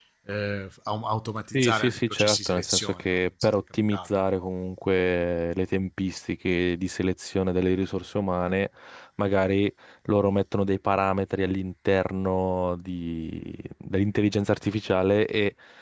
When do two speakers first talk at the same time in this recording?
1.5 s

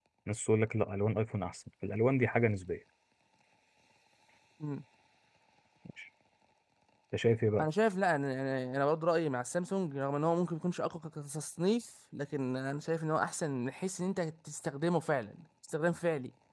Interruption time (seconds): none

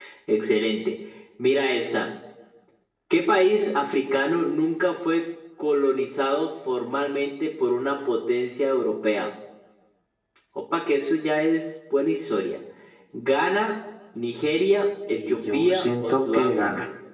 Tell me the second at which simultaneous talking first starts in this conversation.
15.1 s

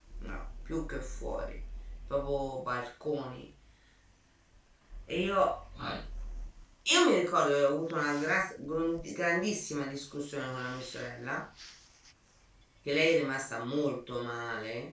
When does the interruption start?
none

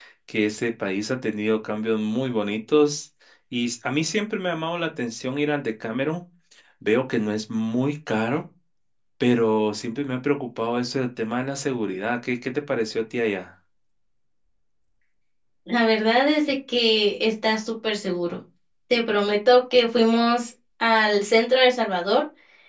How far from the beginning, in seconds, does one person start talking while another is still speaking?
none

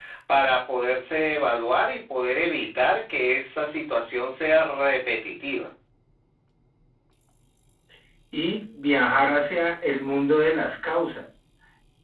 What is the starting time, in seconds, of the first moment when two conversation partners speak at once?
none

